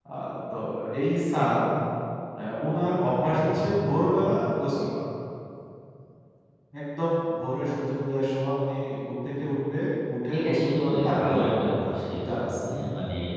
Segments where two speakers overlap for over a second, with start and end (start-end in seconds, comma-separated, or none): 10.3-12.4